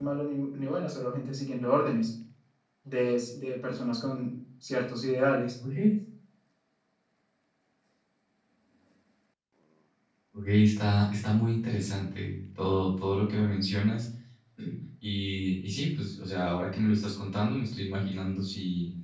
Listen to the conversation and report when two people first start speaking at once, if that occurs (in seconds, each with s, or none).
none